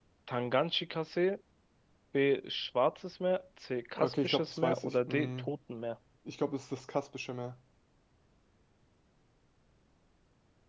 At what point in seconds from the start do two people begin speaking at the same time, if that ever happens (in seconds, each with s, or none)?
4.0 s